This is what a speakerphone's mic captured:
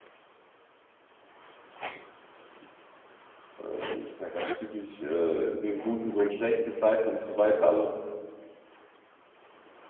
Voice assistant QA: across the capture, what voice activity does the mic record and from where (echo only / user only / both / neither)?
user only